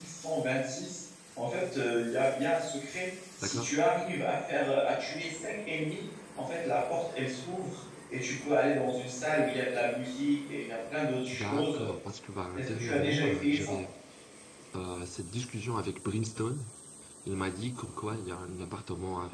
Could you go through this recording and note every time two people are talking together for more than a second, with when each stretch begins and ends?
12.5-13.8

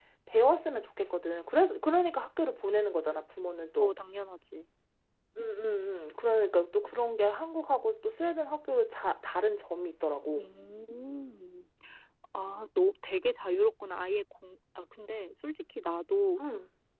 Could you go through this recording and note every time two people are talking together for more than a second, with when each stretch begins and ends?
none

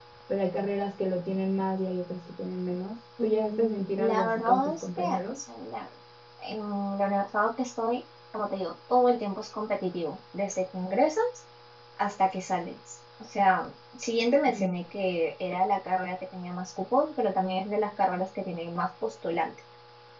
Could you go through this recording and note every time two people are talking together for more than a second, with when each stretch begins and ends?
3.2-5.4

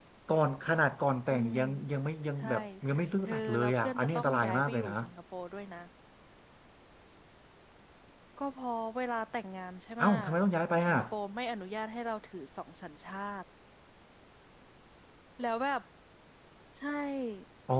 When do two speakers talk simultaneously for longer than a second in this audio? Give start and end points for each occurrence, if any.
3.3-4.9

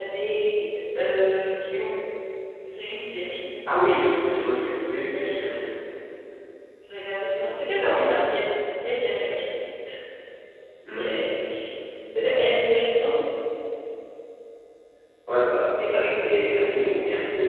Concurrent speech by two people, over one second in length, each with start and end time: none

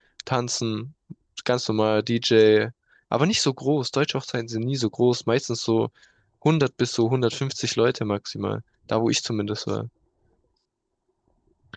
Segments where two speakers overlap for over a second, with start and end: none

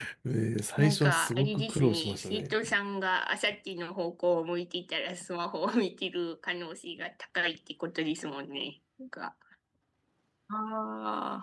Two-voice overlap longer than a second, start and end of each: 0.8-2.5

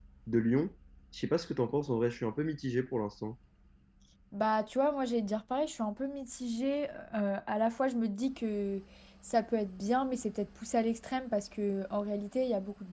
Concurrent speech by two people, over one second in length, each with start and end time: none

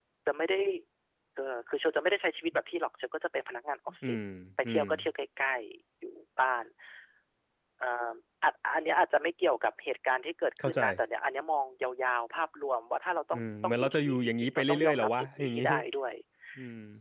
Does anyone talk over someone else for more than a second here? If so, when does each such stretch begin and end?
13.3-15.6

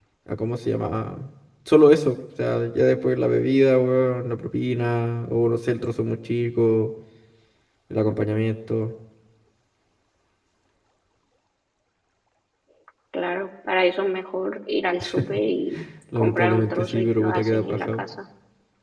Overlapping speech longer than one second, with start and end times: 16.2-18.0

